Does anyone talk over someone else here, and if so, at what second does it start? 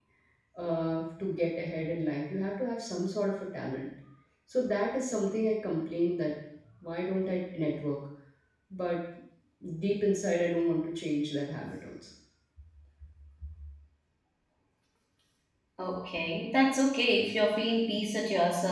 none

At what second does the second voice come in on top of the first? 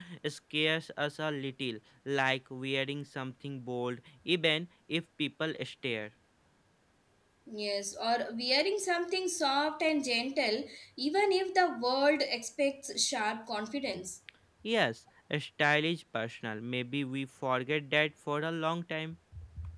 none

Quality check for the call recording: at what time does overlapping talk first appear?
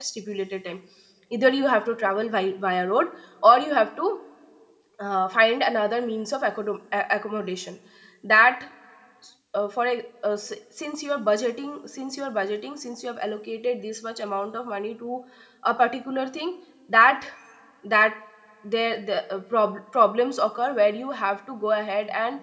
none

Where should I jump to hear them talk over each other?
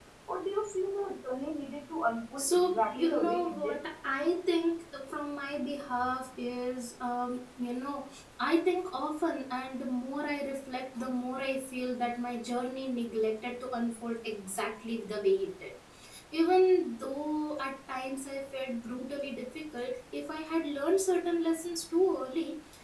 2.4 s

